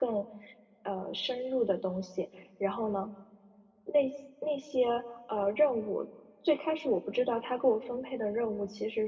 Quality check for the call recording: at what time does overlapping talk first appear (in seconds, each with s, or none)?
none